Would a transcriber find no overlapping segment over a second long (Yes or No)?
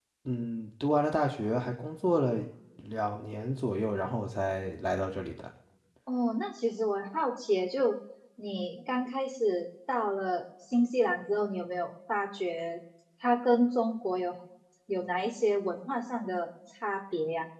Yes